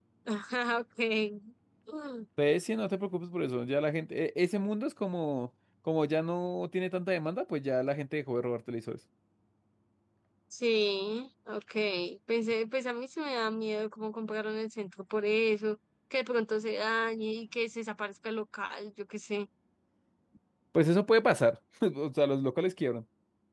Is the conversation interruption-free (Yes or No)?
Yes